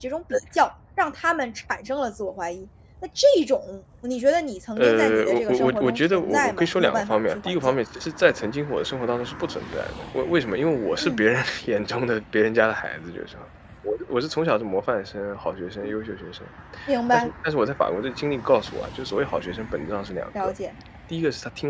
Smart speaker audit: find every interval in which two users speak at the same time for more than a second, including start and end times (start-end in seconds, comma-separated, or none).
4.8-7.7